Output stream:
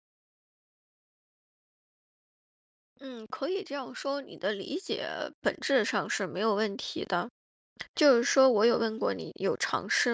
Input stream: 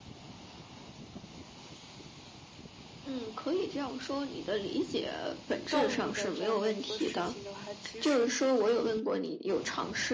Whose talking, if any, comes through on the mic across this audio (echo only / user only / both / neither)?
both